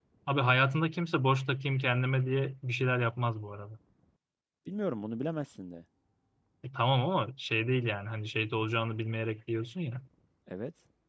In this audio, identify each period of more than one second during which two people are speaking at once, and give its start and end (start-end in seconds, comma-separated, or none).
none